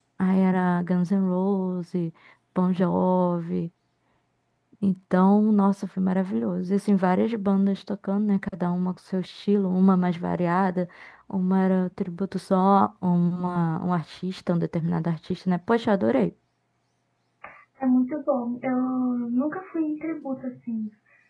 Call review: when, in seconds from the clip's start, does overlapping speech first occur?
none

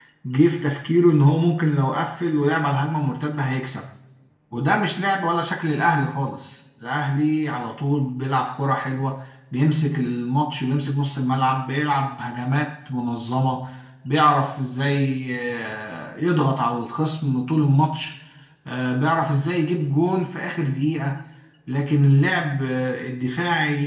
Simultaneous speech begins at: none

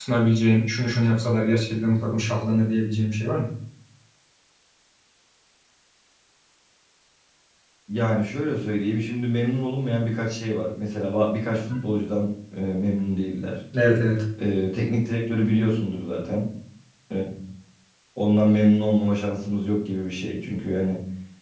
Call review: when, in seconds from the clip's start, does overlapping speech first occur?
none

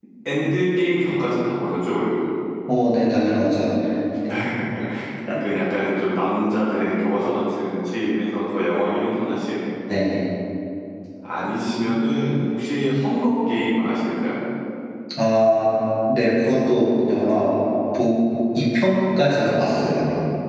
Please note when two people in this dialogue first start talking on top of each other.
none

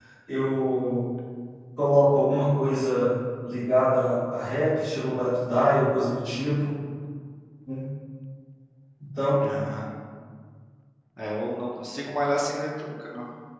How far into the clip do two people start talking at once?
none

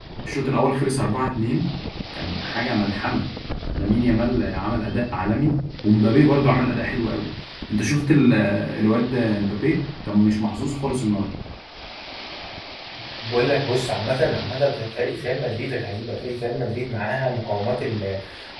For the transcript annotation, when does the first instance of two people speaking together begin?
none

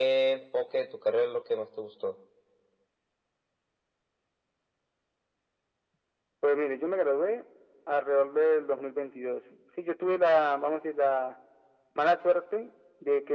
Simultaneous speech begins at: none

